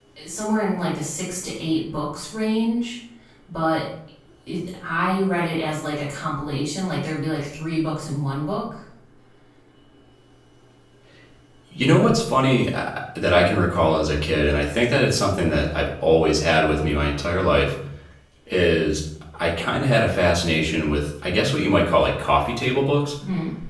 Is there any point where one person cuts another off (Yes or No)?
No